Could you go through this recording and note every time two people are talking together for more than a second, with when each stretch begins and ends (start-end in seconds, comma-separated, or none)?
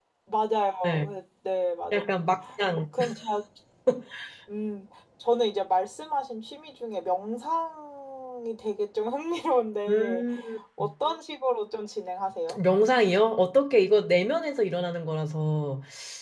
none